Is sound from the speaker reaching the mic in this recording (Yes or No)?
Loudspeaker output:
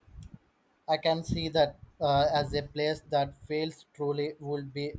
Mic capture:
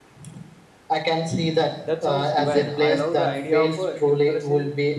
Yes